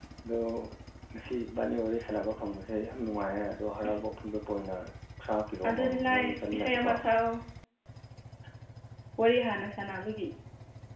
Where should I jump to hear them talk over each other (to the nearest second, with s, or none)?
6 s